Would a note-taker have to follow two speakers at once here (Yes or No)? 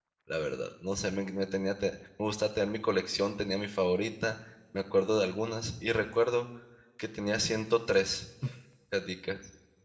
No